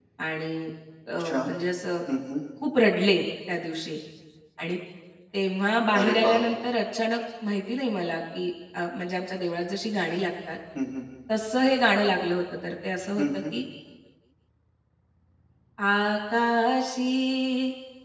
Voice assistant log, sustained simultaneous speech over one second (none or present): none